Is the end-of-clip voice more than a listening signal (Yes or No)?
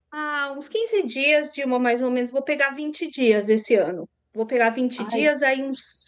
No